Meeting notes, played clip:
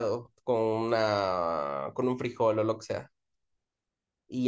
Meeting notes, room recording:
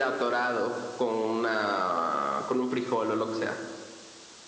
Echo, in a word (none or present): present